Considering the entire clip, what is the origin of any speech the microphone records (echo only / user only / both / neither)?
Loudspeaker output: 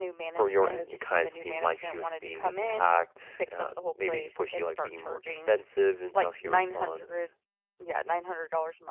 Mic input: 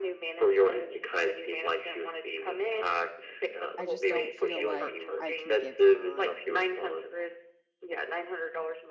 both